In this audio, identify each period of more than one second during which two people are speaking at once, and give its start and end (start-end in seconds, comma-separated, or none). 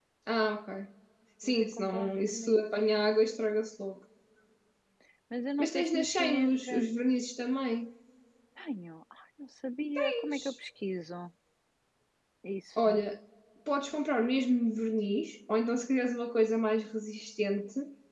1.4-2.6, 5.6-7.0